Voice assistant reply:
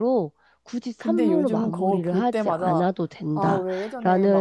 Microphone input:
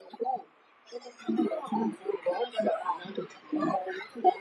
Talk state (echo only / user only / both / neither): echo only